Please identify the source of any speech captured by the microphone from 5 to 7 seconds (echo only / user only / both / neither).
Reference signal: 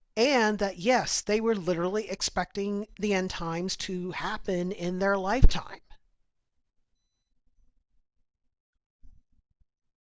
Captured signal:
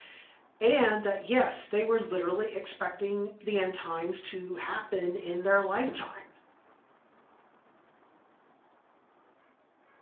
echo only